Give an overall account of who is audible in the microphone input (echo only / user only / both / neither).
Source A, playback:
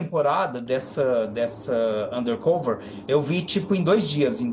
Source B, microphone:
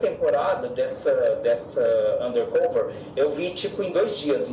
echo only